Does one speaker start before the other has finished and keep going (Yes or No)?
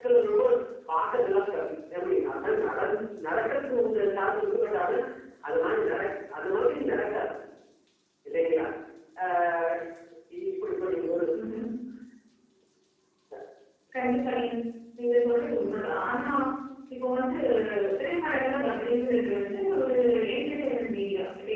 No